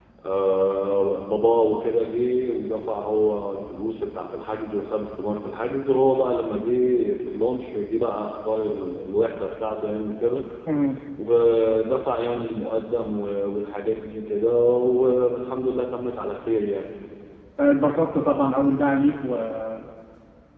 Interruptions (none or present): none